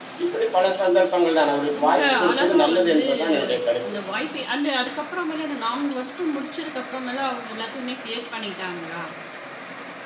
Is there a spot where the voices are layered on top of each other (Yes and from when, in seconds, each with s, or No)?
Yes, from 1.7 s